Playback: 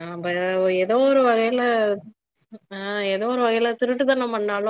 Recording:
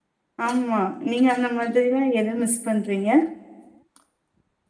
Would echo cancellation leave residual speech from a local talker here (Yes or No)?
Yes